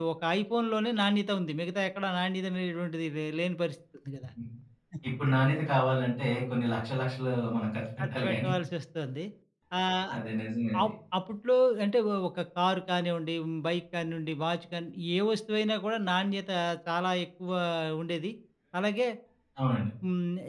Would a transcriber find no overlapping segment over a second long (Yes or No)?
Yes